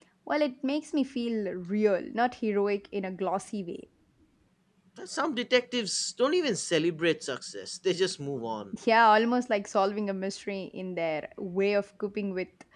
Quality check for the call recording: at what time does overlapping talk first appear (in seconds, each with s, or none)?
none